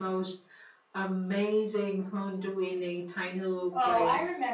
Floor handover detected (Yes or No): Yes